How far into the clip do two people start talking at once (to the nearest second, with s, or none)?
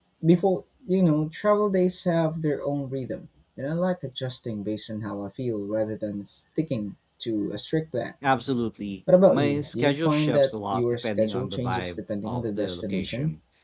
9 s